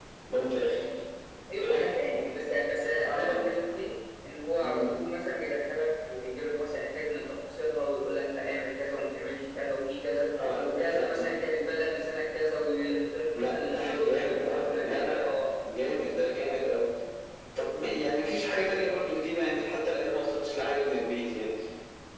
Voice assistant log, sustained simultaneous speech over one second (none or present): present